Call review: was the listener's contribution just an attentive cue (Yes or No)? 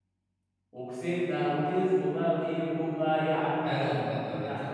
No